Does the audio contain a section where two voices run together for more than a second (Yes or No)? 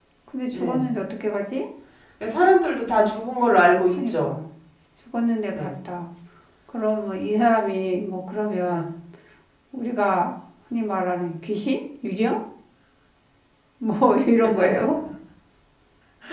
No